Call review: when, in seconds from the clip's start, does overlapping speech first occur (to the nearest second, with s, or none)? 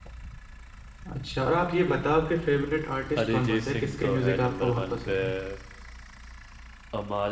3 s